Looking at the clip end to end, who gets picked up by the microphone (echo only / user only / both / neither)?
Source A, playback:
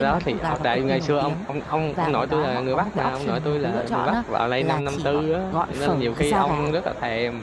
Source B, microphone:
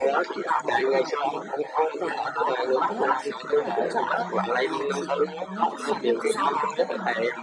both